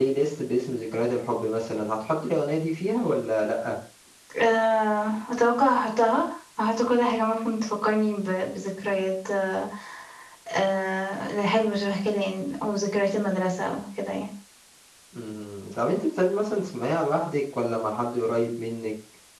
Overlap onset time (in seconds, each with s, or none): none